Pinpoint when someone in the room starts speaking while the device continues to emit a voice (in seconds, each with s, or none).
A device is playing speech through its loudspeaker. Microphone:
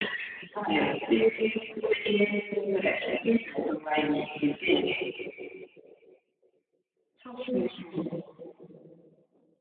none